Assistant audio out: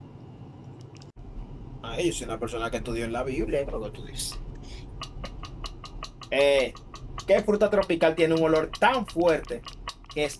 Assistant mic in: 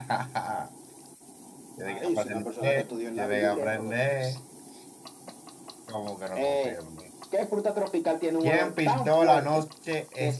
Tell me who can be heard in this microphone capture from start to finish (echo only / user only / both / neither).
both